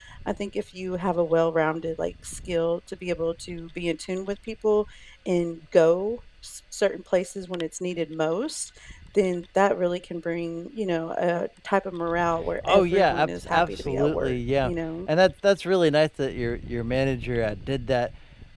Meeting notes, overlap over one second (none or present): present